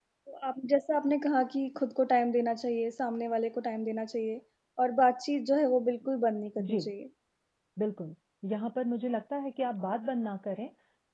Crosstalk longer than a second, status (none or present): none